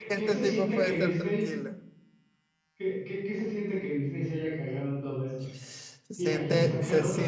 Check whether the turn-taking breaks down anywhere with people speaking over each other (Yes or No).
Yes